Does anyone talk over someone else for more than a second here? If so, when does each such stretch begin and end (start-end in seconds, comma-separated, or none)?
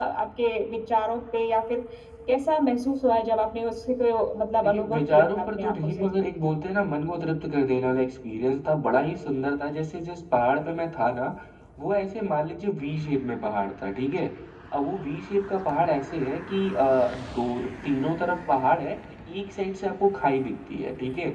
4.6-6.0